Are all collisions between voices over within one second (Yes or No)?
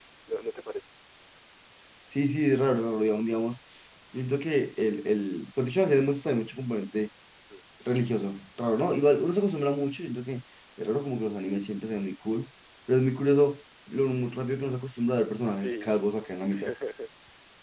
Yes